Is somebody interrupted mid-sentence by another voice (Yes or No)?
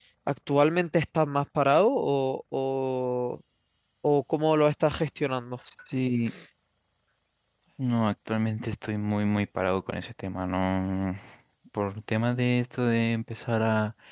No